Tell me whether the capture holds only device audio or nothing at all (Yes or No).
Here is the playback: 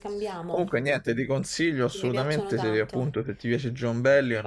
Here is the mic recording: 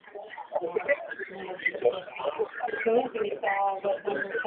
No